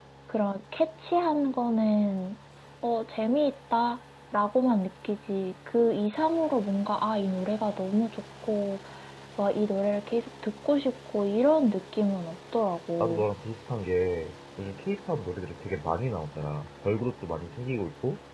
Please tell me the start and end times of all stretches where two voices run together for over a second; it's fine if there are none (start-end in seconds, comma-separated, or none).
none